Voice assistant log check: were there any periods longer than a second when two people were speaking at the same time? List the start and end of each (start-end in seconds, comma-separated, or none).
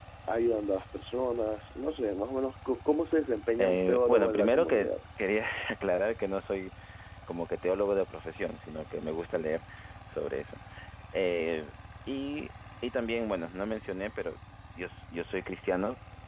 3.6-4.9